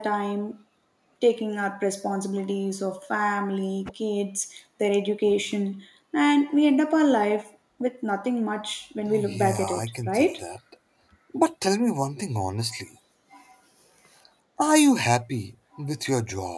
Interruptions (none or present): present